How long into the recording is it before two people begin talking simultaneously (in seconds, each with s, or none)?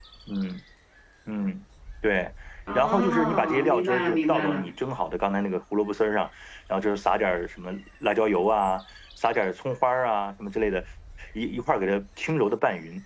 2.8 s